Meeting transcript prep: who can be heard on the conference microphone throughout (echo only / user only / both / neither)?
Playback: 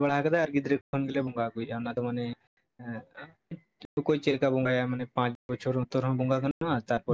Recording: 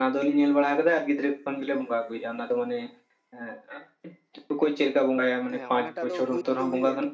both